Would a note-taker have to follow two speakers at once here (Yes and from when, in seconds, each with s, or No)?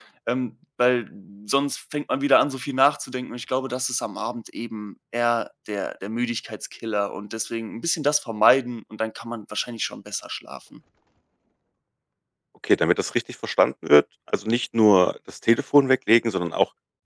No